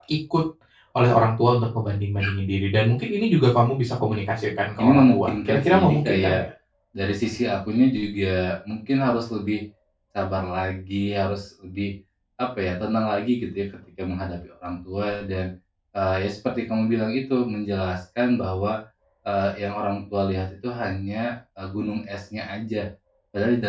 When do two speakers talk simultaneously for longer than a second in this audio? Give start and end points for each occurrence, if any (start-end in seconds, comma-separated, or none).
4.8-6.4